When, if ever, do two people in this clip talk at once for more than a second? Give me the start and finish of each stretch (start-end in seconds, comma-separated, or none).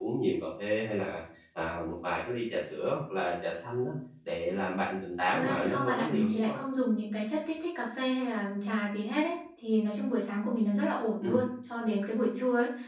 5.3-6.6